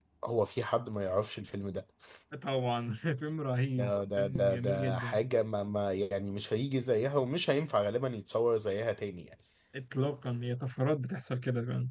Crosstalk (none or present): present